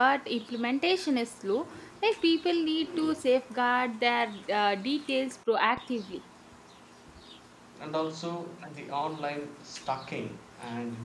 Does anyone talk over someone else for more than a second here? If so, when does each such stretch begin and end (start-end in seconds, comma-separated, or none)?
none